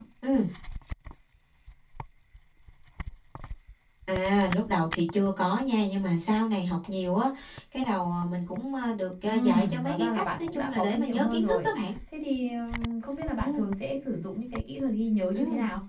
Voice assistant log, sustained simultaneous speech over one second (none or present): present